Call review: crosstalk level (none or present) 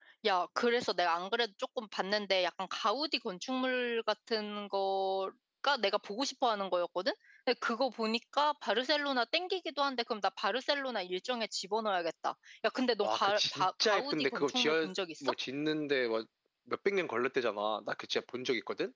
present